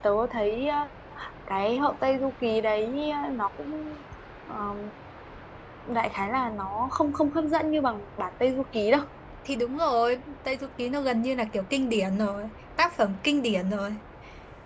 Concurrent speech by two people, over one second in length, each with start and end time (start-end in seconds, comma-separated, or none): none